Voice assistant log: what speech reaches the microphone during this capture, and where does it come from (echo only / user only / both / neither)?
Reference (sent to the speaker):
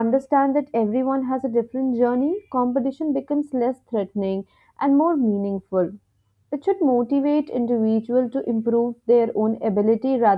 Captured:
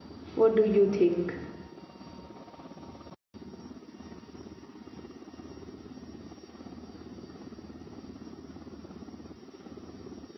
user only